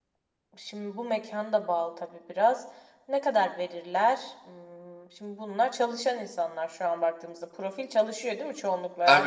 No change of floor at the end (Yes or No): No